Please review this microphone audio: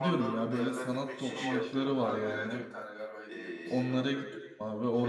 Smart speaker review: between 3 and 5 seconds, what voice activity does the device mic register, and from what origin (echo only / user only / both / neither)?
both